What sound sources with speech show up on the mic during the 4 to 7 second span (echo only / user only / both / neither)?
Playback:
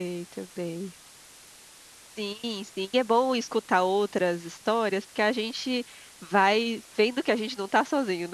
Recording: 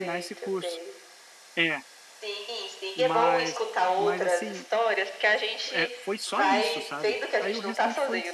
both